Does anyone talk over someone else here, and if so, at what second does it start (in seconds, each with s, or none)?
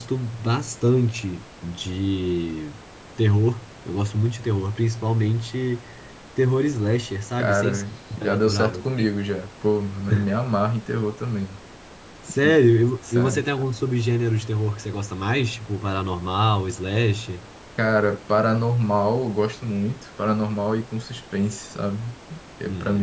7.4 s